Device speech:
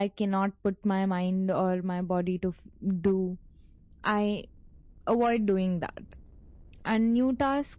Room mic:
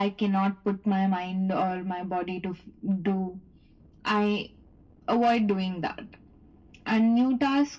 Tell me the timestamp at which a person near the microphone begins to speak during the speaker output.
none

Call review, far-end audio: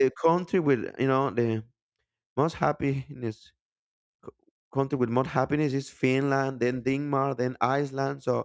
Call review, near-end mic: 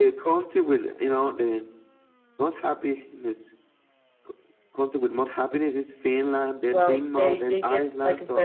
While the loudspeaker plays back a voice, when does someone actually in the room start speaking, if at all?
7 s

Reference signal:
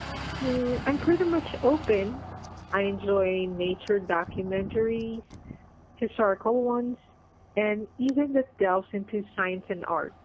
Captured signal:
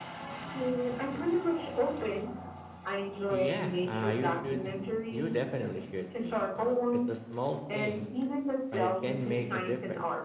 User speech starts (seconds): 3 s

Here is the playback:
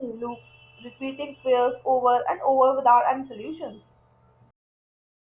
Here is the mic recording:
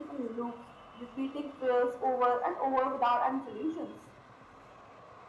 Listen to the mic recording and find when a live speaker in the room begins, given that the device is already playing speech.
none

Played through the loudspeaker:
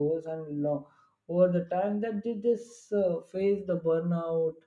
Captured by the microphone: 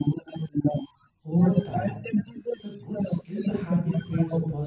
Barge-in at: 1 s

